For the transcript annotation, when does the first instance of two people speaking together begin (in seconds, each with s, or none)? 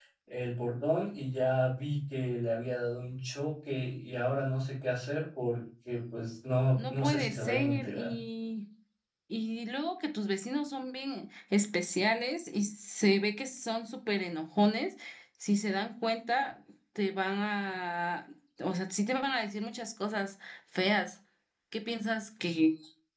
6.8 s